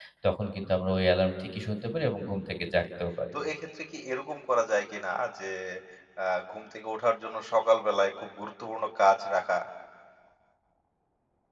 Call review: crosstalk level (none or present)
none